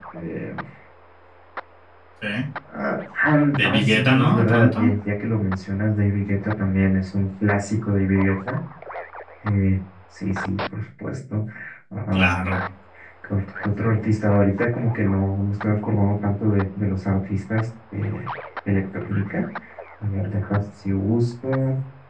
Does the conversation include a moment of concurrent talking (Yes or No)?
Yes